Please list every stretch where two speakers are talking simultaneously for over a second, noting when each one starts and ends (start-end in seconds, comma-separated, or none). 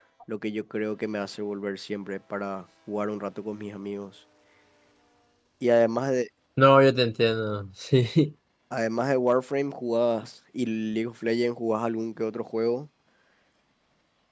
none